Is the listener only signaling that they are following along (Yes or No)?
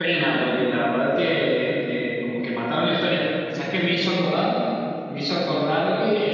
Yes